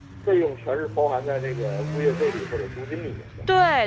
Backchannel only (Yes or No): No